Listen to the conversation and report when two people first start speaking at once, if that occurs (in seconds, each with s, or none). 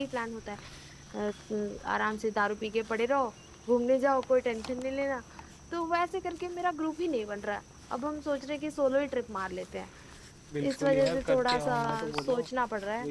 10.7 s